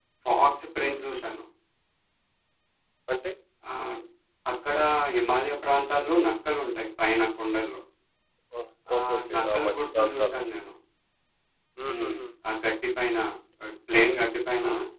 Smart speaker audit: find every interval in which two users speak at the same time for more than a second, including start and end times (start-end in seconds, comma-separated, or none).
9.0-10.4